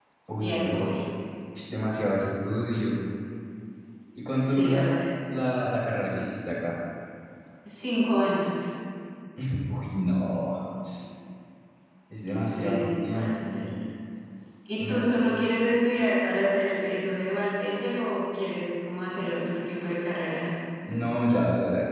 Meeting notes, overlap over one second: present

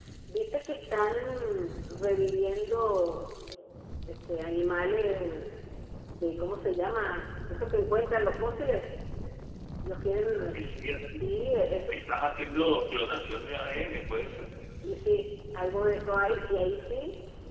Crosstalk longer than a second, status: none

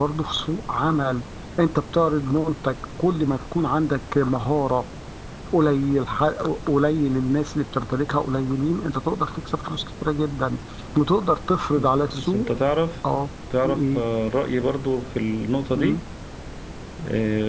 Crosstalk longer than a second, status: none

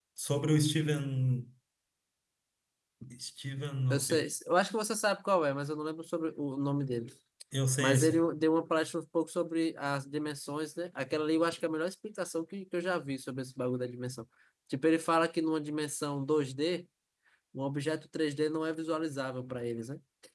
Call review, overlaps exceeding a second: none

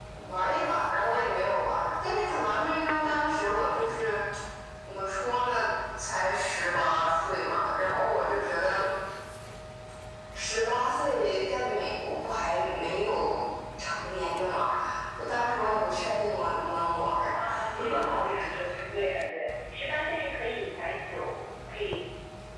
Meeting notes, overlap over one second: none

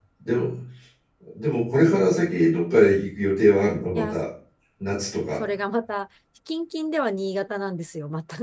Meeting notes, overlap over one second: none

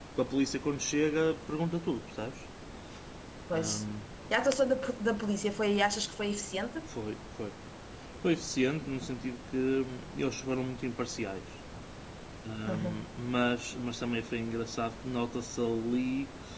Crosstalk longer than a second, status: none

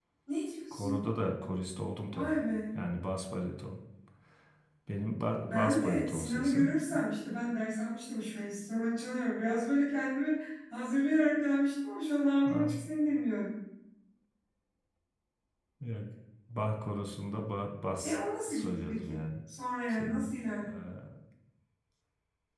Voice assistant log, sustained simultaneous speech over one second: present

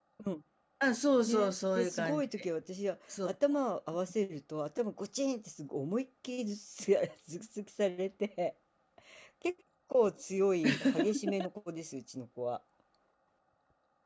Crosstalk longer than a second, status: present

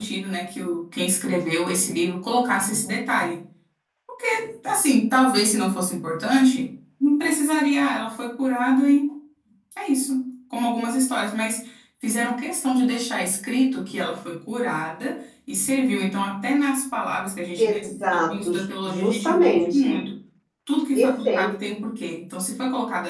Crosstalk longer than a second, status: present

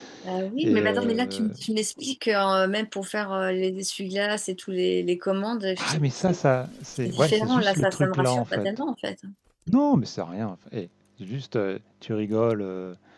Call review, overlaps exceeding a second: present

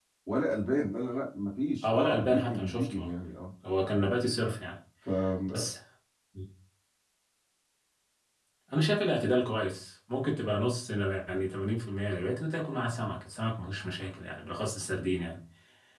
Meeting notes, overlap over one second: present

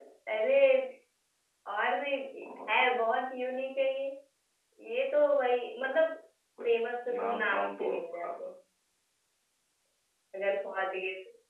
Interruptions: present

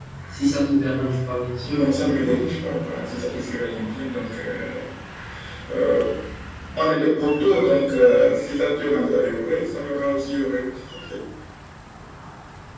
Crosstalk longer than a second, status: none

